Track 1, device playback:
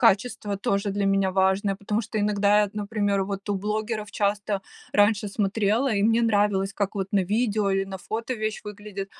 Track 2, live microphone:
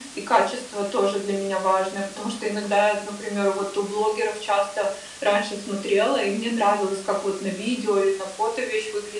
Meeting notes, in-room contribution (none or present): none